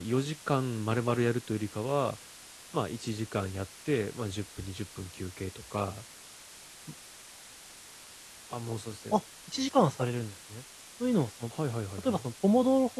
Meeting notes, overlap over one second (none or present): none